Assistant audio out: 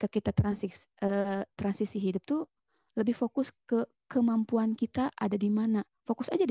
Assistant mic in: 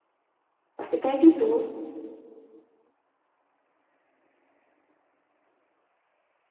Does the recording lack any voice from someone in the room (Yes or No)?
No